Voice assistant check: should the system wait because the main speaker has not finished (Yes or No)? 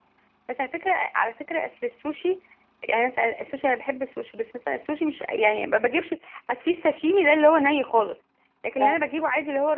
Yes